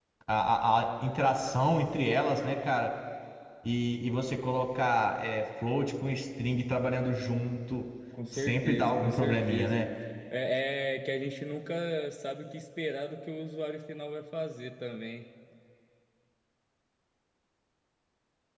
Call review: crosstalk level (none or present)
present